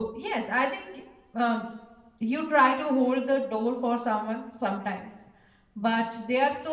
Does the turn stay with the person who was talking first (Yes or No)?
Yes